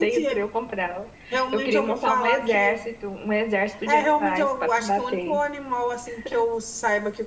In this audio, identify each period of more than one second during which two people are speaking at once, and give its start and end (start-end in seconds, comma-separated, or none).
1.5-2.8, 3.9-5.4